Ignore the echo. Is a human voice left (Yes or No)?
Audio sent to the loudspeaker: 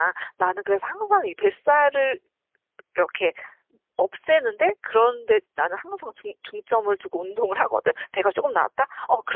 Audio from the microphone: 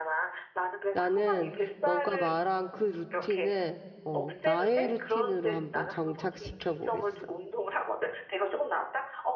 Yes